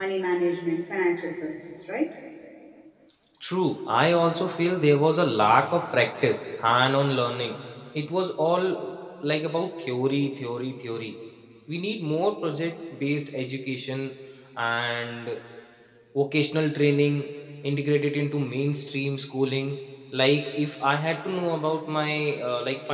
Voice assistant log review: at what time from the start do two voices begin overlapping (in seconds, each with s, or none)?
none